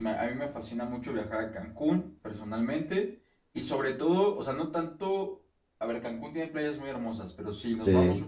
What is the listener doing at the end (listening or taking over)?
listening